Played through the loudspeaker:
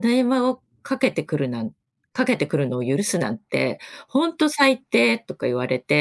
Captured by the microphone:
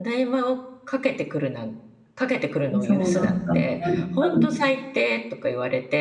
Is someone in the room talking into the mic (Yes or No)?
Yes